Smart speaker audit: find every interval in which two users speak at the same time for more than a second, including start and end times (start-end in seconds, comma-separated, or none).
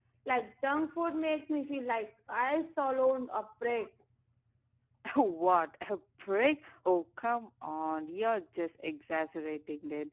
none